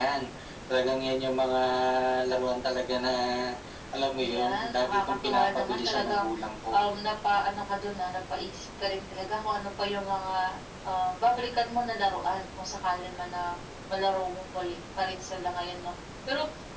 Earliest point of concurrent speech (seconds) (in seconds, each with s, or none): 4.2 s